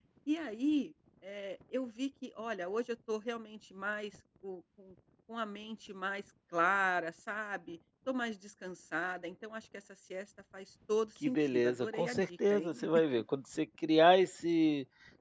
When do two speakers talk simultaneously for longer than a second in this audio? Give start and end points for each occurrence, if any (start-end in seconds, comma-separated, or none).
11.2-12.8